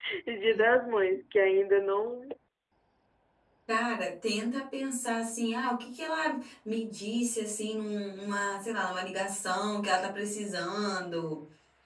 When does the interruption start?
none

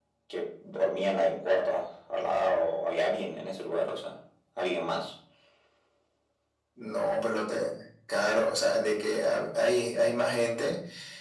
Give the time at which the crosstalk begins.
none

